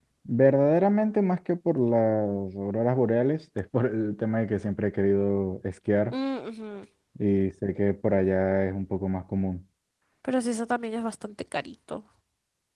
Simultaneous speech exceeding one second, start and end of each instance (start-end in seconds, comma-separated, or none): none